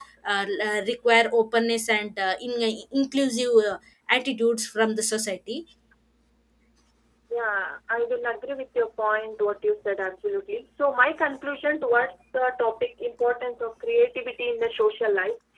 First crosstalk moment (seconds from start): none

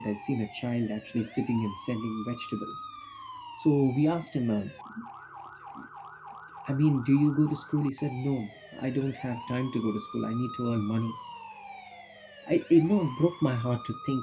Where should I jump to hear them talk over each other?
none

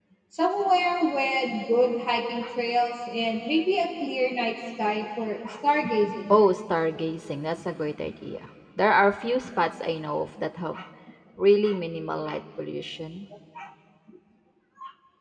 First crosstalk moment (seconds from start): none

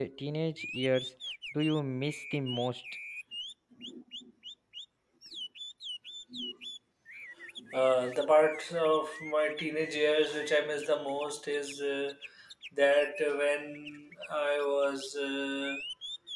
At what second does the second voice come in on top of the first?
none

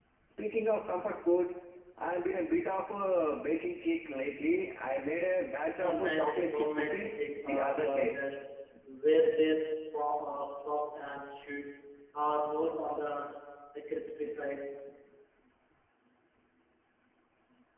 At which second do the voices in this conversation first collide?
6 s

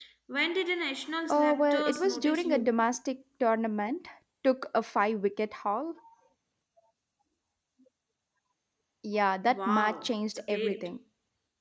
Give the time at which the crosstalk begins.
1 s

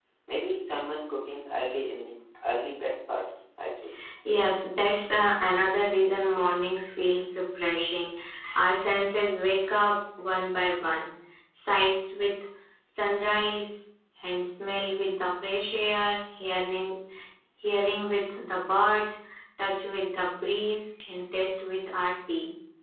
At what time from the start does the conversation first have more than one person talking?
none

